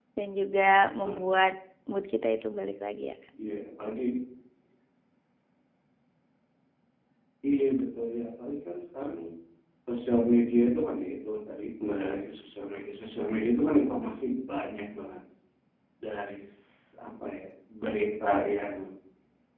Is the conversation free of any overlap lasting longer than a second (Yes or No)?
Yes